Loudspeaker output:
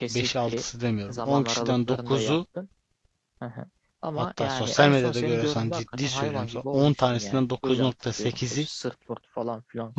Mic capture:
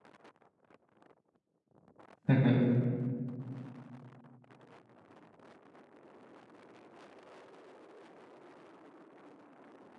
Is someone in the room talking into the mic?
Yes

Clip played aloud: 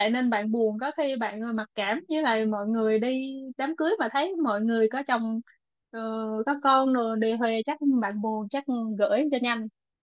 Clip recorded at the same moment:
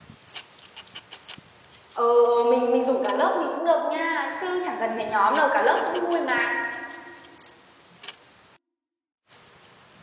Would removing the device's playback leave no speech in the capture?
No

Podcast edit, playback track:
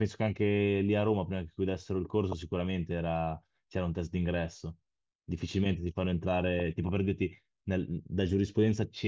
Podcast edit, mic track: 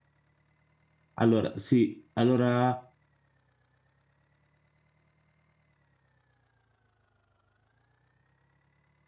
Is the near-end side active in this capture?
Yes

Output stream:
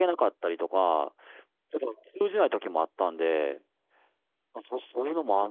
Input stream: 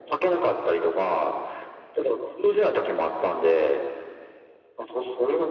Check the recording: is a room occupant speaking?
No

